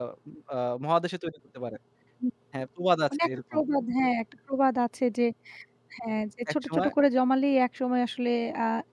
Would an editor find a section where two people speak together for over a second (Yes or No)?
No